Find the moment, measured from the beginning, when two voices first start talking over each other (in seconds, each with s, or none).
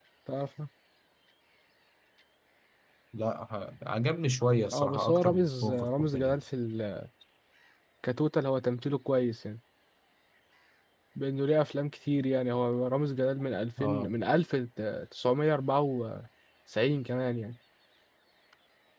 4.7 s